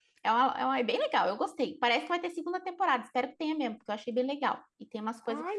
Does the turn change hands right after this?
Yes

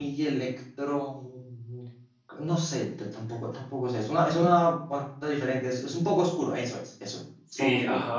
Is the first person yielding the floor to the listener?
Yes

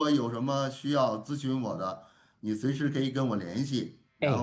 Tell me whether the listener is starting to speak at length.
No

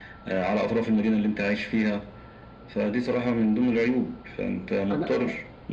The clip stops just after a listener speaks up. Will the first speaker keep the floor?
Yes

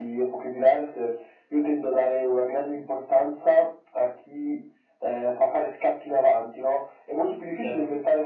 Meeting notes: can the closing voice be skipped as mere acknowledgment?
Yes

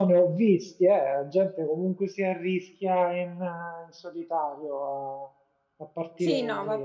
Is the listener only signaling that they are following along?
No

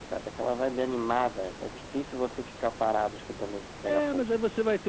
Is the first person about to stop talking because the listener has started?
Yes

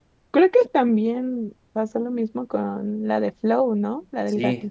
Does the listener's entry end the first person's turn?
Yes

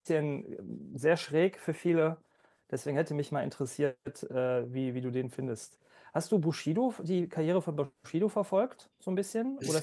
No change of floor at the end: No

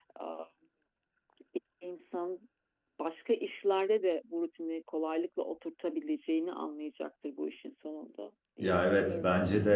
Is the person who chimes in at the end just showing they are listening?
No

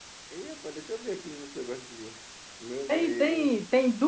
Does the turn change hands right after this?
Yes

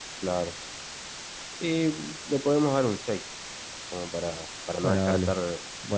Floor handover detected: Yes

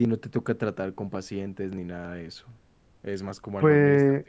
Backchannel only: No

